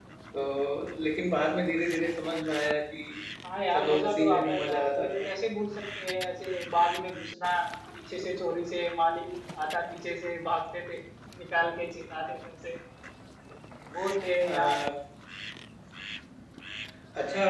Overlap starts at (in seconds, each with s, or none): 3.7 s